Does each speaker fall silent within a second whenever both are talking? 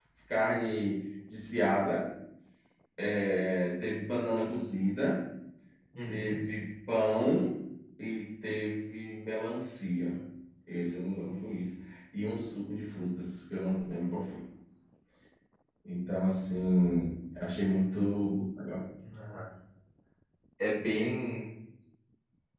Yes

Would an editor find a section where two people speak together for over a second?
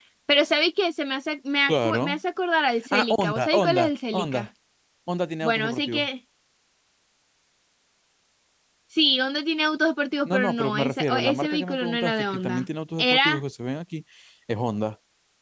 Yes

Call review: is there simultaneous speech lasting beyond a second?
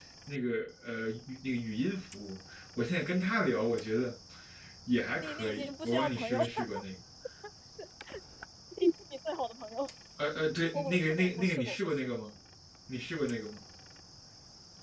Yes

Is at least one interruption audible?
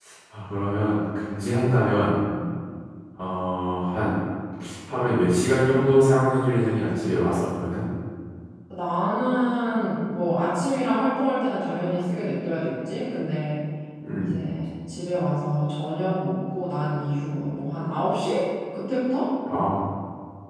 No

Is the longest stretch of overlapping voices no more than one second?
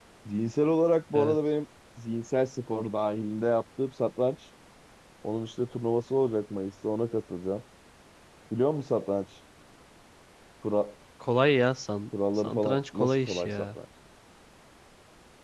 No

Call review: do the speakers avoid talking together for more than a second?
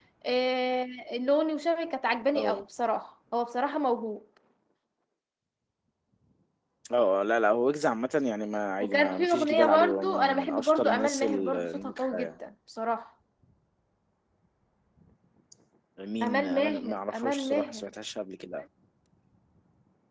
No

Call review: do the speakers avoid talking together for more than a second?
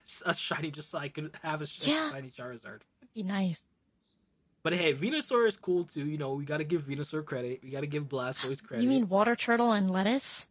Yes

